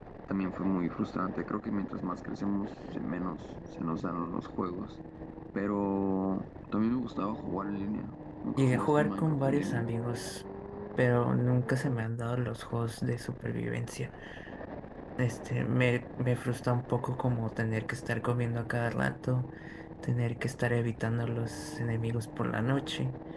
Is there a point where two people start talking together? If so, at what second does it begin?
8.6 s

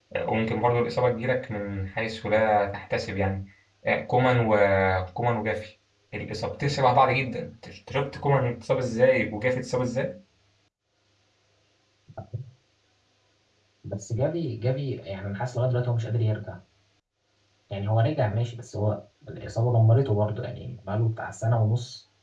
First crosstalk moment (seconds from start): none

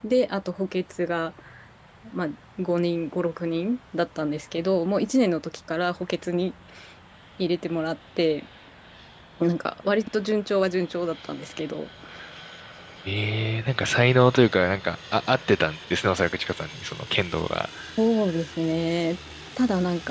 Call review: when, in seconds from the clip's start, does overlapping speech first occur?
none

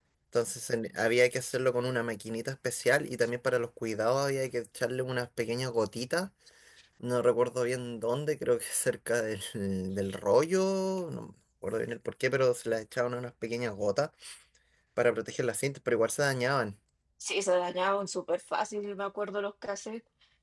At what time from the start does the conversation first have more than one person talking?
none

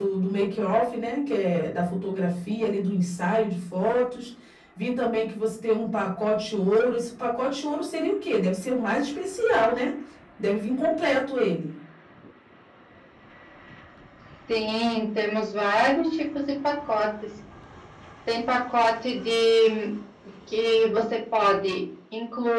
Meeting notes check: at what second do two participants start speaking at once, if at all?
none

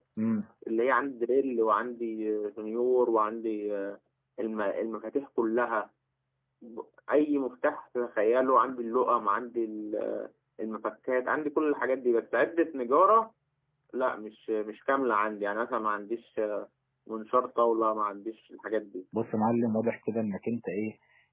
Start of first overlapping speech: none

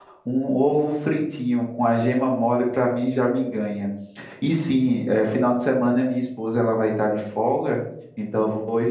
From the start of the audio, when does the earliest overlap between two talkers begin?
none

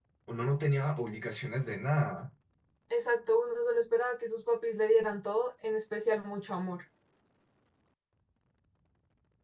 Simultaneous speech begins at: none

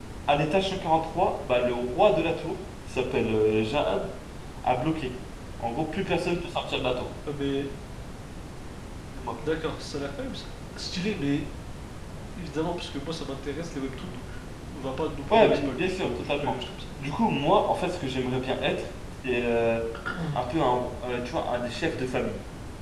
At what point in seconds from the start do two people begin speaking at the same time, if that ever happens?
15.3 s

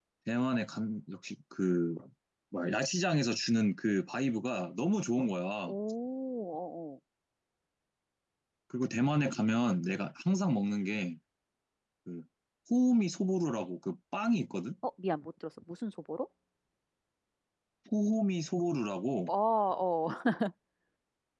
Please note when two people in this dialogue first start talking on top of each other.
none

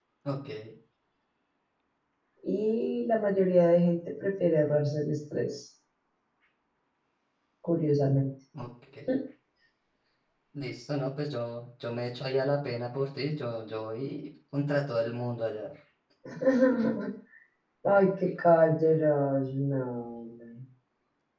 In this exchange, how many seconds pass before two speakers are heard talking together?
none

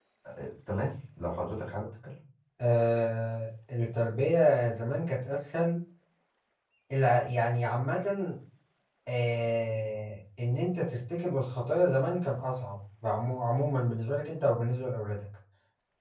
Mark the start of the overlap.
none

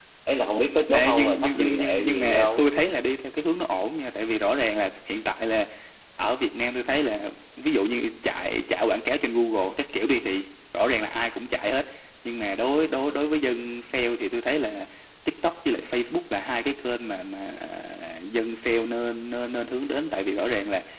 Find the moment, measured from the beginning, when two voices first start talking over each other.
0.9 s

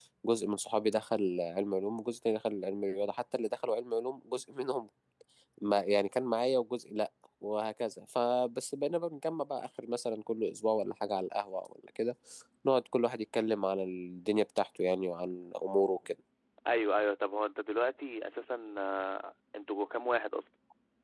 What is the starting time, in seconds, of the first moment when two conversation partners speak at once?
none

